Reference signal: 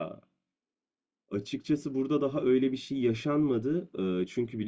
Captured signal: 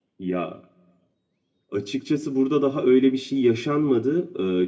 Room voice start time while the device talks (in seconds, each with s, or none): none